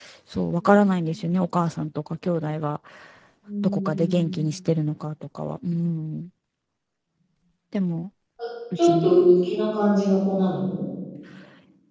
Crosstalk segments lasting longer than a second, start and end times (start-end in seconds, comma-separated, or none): none